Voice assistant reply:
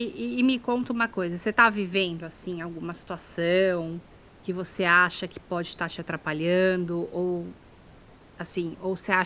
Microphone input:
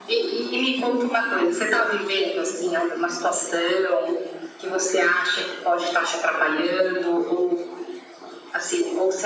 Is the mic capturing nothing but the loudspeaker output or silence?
Yes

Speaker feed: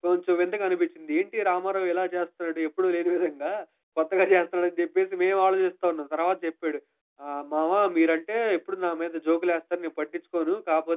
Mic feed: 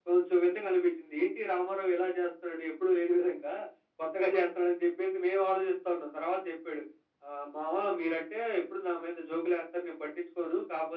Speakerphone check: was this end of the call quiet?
Yes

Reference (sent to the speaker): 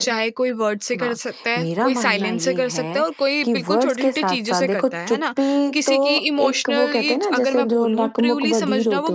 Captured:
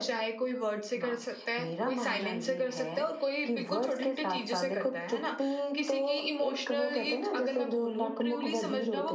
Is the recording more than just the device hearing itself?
No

